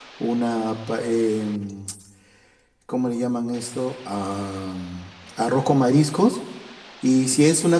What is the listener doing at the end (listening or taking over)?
listening